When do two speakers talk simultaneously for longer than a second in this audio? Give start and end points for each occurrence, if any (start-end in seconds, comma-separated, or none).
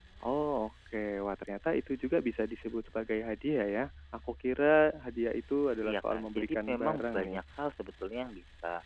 5.8-7.4